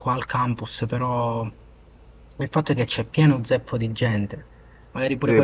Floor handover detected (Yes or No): Yes